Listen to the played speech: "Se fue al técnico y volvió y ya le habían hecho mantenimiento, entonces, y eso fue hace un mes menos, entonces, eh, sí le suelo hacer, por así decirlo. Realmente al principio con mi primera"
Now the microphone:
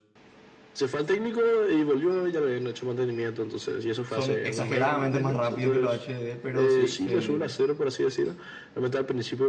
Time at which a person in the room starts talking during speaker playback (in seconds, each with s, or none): 4.0 s